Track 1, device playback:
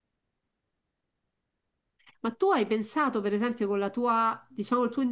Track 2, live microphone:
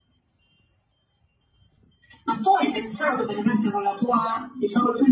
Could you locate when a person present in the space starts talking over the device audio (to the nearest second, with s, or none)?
none